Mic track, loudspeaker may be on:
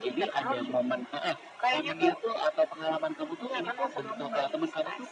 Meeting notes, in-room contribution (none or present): none